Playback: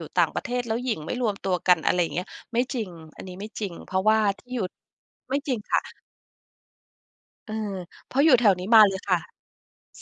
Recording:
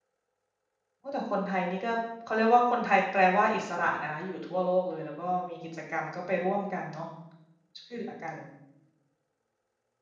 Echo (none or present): none